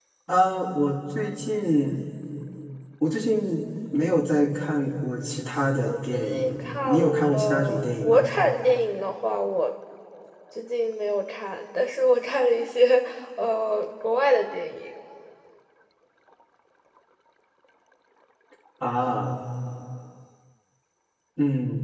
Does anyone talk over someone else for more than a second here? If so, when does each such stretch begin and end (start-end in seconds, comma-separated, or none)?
5.8-8.3